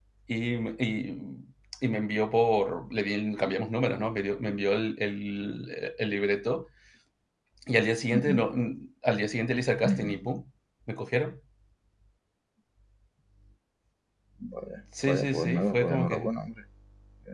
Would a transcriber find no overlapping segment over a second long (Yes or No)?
No